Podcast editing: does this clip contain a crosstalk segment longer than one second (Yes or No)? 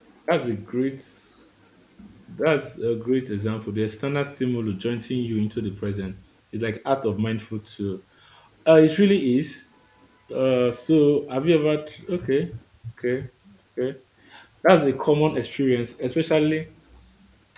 No